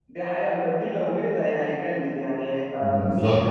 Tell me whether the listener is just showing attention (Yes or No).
No